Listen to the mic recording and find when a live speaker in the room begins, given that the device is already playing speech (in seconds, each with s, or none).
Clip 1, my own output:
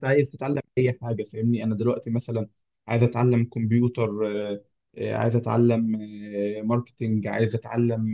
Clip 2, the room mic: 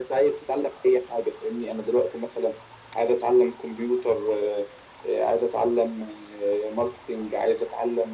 none